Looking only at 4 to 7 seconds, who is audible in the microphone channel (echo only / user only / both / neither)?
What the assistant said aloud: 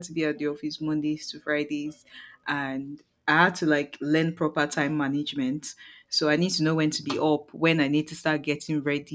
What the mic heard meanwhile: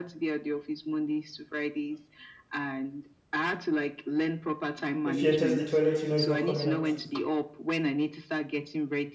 both